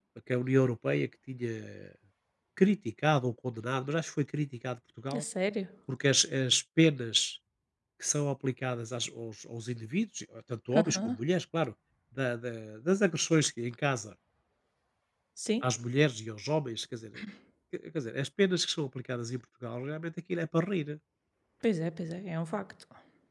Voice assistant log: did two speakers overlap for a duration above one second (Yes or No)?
No